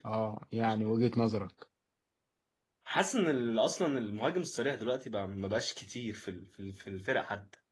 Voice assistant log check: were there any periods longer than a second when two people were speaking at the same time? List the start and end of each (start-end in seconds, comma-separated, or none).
none